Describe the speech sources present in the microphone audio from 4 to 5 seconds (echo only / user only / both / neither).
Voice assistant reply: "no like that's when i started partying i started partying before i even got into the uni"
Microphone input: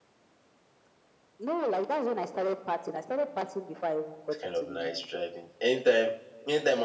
both